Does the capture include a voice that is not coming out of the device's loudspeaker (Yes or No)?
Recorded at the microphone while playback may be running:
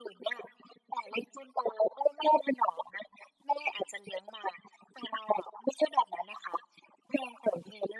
No